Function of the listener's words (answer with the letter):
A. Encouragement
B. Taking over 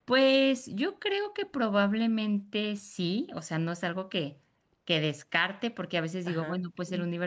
A